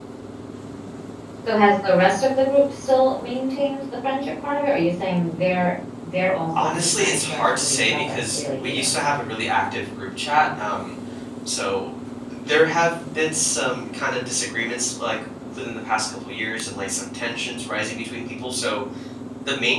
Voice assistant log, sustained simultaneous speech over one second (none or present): present